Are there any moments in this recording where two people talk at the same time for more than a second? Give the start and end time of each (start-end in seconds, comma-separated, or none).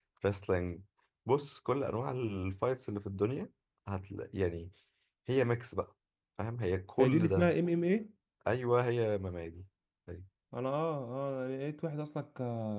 none